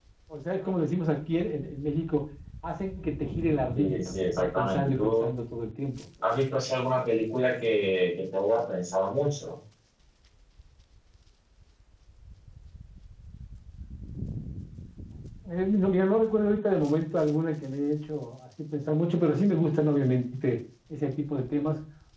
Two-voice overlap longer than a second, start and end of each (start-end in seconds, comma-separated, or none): 3.8-5.2